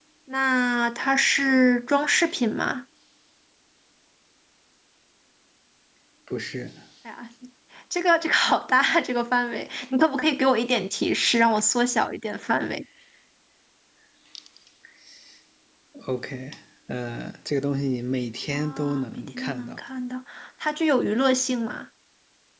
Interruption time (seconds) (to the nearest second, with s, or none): 19 s